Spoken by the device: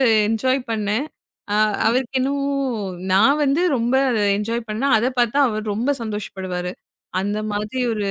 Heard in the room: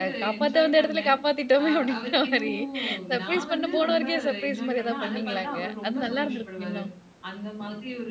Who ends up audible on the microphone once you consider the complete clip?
both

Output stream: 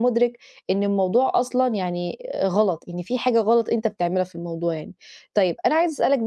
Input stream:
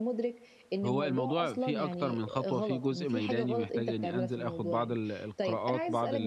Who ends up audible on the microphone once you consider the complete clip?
both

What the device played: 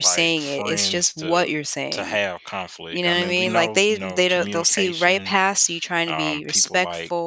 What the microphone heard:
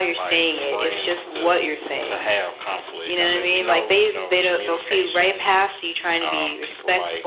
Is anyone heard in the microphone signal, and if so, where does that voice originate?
echo only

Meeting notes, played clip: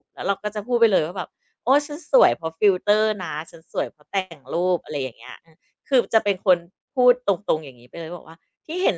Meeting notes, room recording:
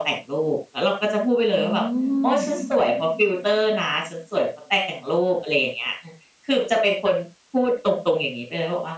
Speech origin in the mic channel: both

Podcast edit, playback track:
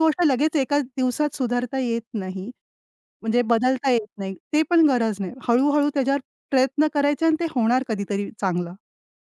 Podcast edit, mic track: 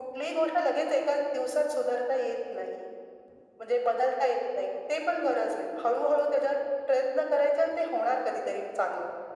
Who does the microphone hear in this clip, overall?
echo only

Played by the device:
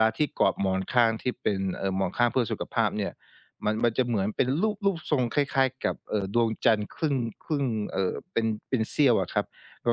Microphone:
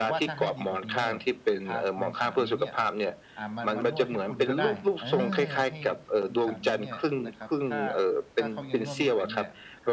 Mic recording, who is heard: both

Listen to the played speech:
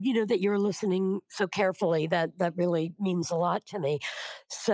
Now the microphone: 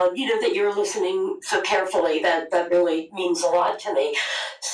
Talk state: echo only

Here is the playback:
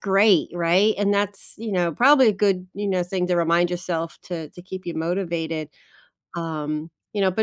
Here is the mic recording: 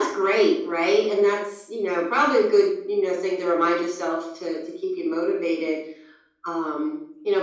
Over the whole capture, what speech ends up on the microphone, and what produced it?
echo only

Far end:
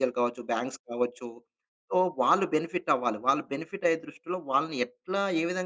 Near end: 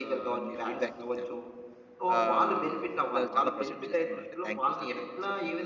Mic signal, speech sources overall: both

